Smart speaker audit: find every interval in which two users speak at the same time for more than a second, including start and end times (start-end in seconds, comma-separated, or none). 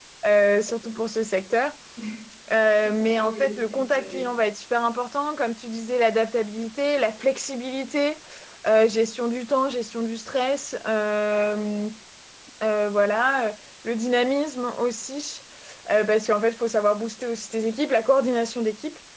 2.8-4.2